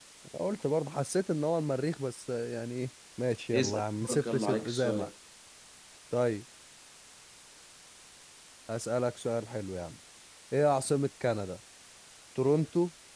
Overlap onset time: 3.5 s

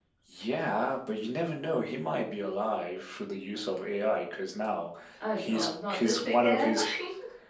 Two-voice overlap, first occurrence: 5.4 s

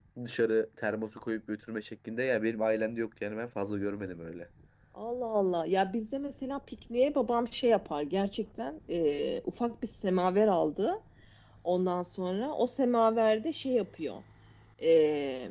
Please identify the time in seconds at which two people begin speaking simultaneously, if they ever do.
none

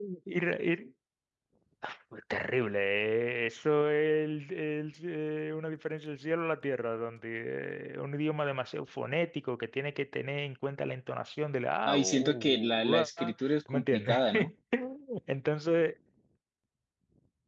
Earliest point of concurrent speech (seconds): 11.9 s

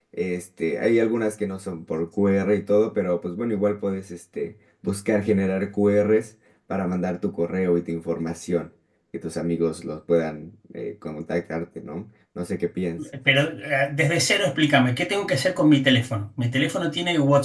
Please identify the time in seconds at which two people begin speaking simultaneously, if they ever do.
none

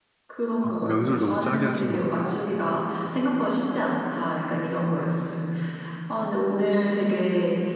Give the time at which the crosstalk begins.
0.6 s

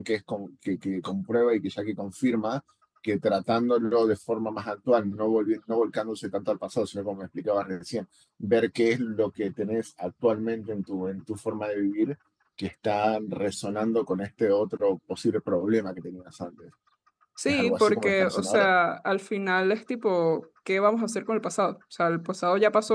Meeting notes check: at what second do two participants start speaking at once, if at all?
17.5 s

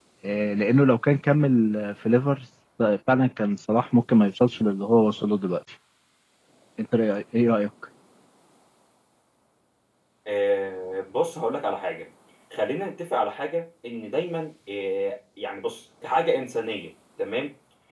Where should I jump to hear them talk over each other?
none

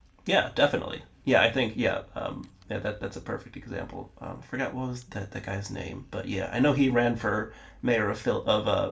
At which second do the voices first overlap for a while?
none

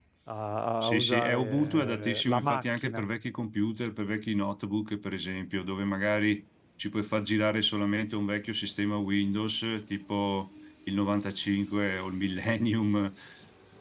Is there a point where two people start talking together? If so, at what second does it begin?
0.8 s

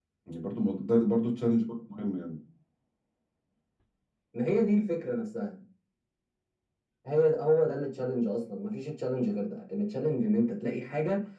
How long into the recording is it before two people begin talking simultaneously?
none

